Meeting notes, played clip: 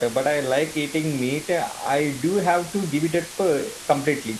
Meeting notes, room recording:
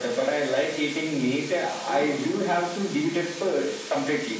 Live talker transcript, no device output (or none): through?